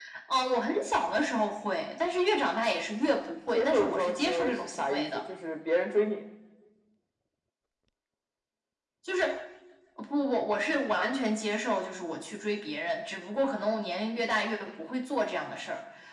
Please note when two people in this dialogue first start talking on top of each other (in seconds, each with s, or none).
3.5 s